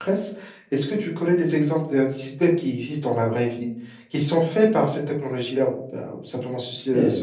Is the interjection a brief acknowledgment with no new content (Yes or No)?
No